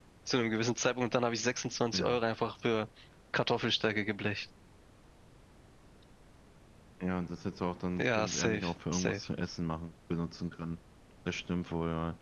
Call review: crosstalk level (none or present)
present